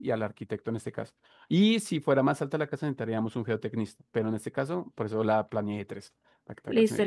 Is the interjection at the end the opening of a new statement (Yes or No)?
Yes